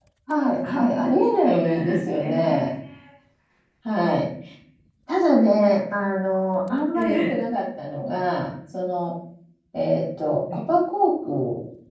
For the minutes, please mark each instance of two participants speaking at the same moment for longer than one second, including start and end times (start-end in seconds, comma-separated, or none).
1.4-2.7